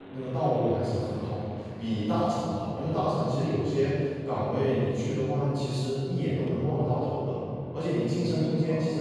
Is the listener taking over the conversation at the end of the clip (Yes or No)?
No